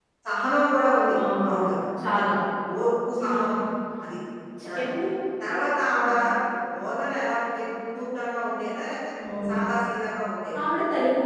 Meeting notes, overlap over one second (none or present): none